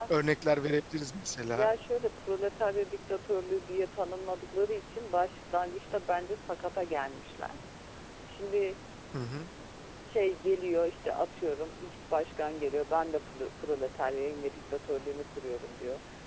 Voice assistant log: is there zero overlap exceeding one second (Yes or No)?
Yes